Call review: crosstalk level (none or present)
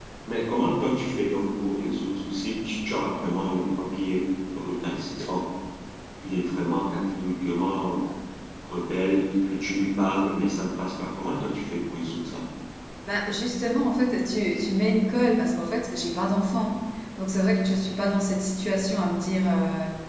none